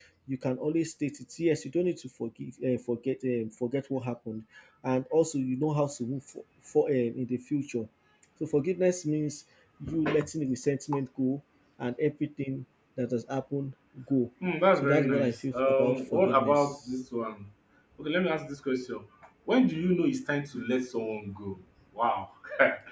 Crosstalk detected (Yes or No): Yes